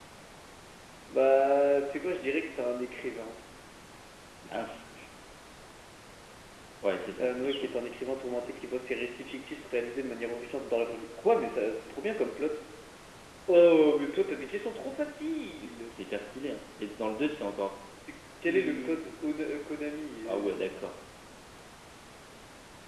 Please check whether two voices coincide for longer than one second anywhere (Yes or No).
No